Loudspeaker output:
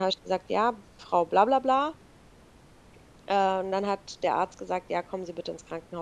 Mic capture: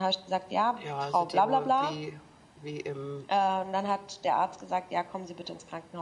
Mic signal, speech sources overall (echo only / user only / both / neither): both